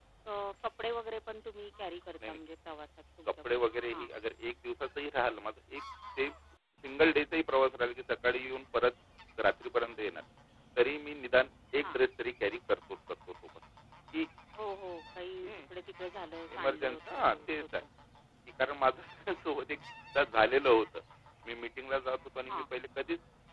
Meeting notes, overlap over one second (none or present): present